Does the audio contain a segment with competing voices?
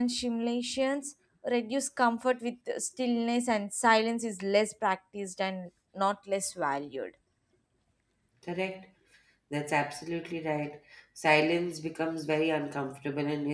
No

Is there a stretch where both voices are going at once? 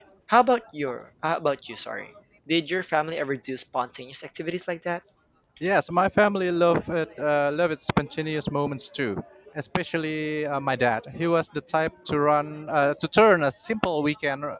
No

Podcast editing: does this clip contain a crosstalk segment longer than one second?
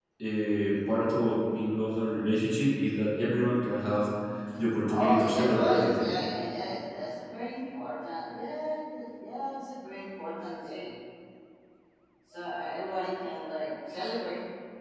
Yes, from 4.9 s

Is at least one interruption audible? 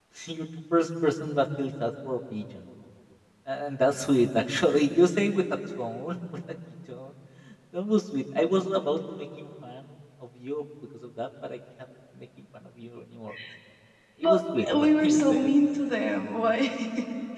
Yes, from 14.2 s

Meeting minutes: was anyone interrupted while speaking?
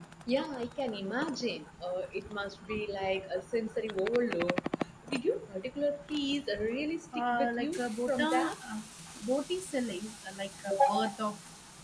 Yes, from 7.1 s

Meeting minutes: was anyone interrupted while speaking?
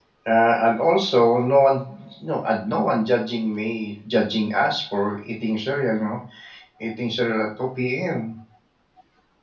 No

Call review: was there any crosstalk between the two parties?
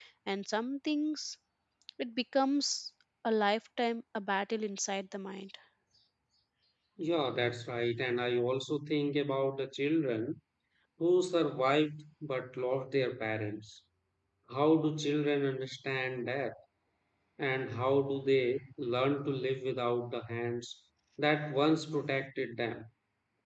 No

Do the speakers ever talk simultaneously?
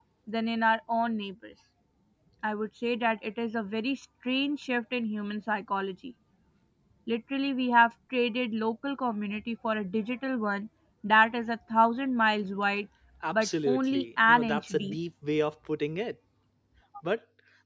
Yes, from 13.3 s

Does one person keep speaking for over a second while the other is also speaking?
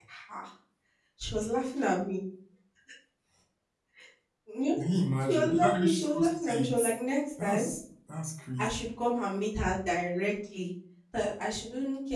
Yes, from 5.3 s

